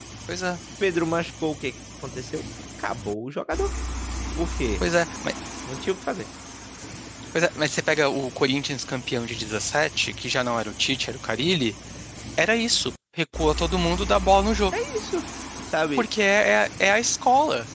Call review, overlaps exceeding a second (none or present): none